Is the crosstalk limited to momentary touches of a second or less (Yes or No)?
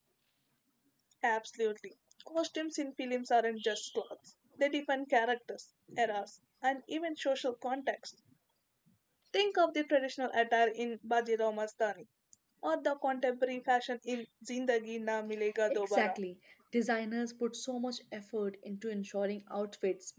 Yes